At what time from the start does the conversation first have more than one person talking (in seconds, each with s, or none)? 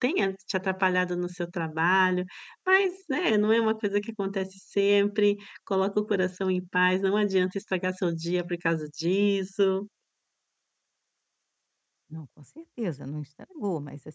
none